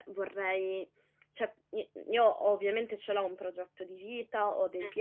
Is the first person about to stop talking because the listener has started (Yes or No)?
No